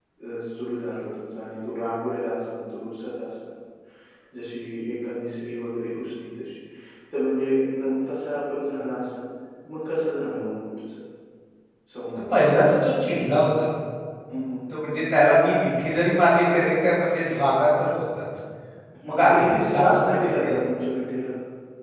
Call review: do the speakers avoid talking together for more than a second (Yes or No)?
No